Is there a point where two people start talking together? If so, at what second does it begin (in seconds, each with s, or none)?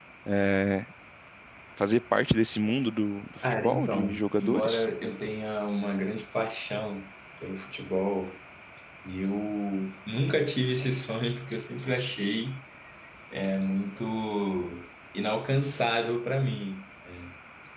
3.4 s